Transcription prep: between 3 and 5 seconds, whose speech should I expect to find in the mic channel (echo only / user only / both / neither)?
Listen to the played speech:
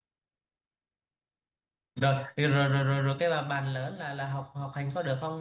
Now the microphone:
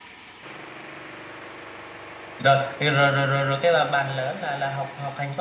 echo only